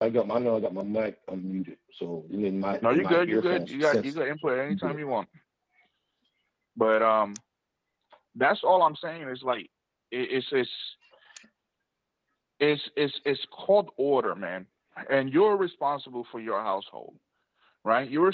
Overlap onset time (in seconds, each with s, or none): 2.8 s